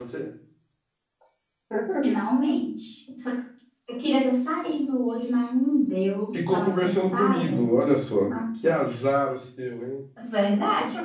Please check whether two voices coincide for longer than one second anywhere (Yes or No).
Yes